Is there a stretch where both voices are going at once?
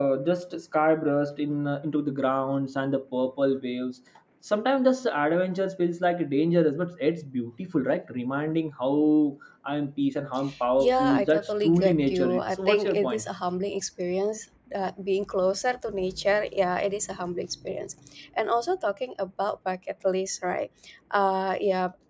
Yes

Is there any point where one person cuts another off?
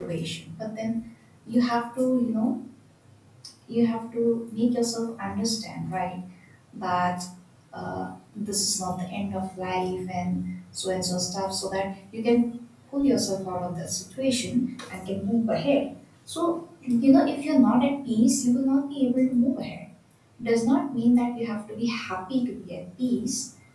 No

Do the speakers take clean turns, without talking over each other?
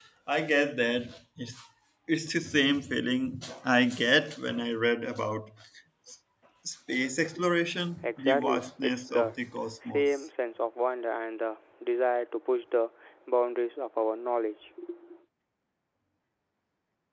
No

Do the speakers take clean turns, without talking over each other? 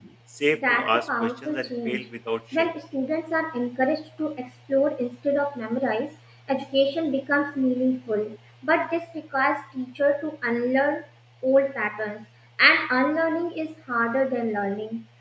No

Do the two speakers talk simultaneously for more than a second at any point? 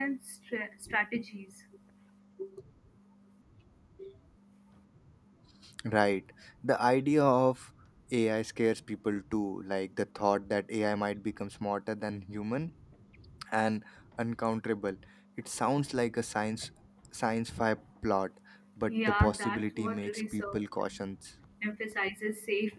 Yes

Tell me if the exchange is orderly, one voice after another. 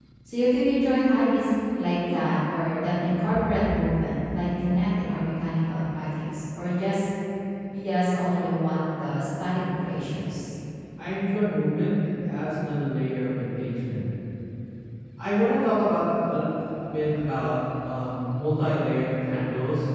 Yes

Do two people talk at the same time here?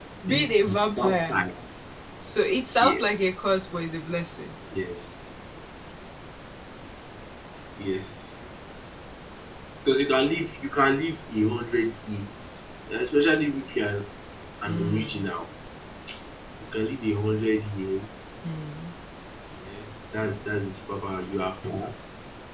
Yes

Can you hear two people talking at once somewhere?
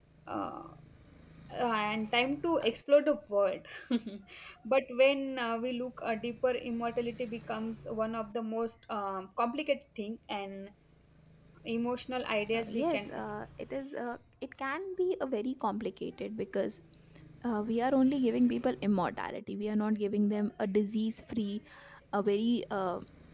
Yes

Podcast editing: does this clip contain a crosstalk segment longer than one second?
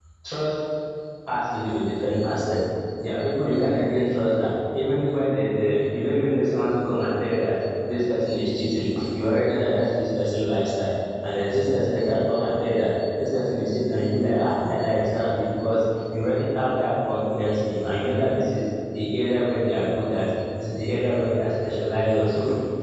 No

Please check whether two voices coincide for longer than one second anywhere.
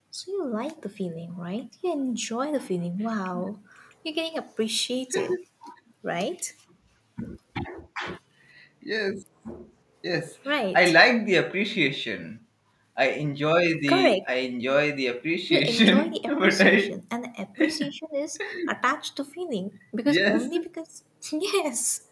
Yes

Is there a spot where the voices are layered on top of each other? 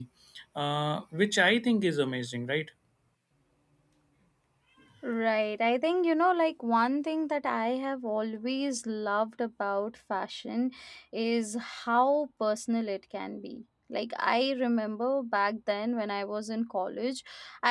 No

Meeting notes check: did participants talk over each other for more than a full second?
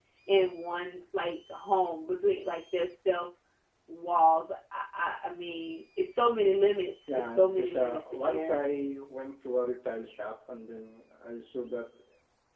Yes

